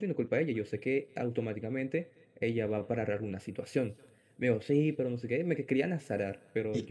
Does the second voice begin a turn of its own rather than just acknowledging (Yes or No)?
Yes